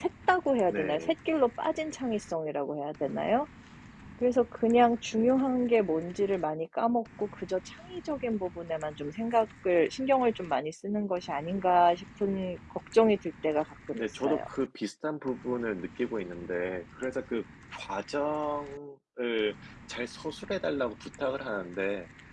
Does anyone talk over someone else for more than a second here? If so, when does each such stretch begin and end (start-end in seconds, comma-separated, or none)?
none